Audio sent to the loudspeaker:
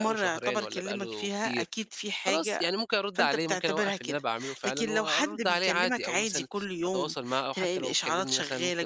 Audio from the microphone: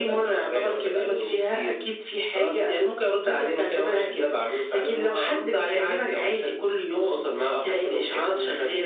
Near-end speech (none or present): none